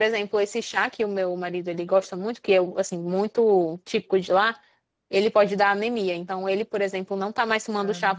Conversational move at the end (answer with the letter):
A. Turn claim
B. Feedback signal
B